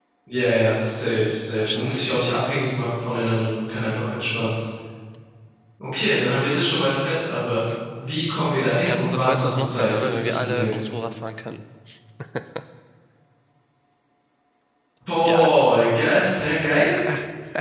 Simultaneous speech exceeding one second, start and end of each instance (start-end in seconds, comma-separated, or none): 8.8-10.8